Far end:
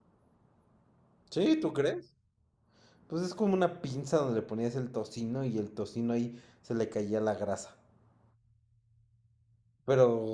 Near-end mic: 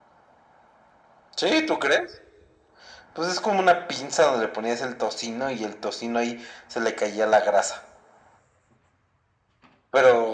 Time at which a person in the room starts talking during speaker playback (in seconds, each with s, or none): none